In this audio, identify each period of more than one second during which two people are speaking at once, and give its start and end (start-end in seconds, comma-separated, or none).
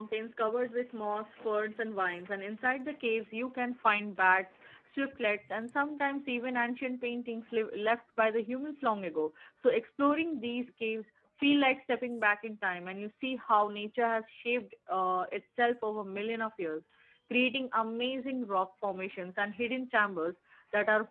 none